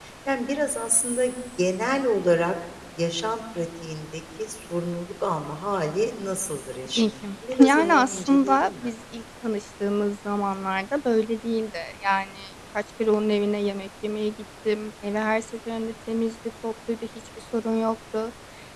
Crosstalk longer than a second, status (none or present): present